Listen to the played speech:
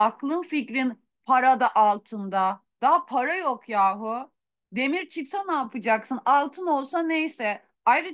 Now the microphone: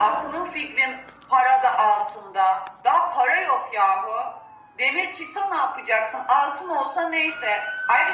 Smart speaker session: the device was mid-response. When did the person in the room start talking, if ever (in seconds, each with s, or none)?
none